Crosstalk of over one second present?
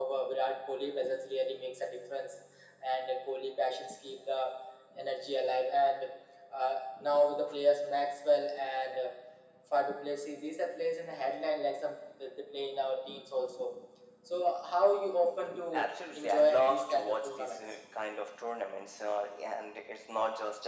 Yes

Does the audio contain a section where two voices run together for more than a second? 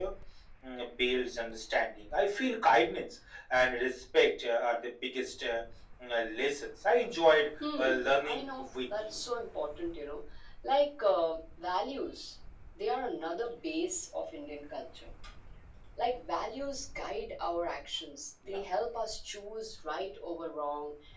Yes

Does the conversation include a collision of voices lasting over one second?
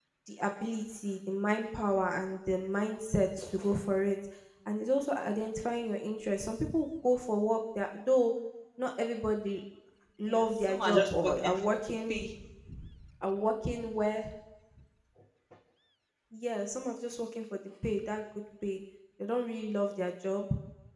Yes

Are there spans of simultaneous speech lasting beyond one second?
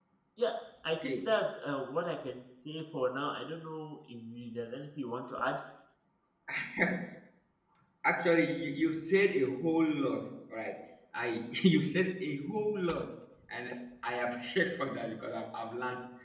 No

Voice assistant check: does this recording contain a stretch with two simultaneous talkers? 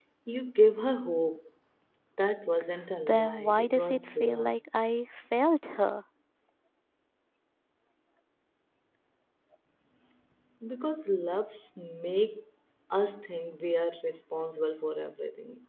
Yes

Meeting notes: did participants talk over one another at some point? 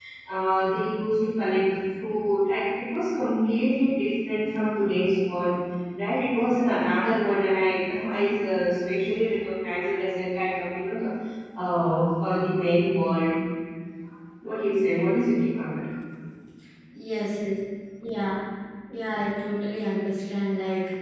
No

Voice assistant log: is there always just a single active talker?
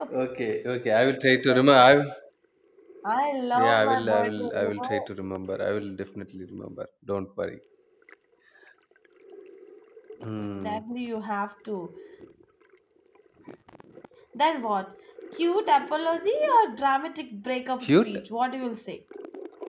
No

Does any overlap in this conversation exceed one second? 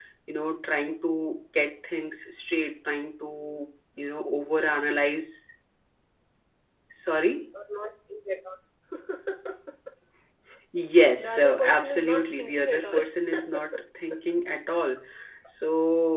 Yes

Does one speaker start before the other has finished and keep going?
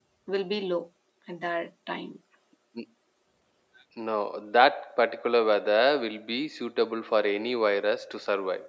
No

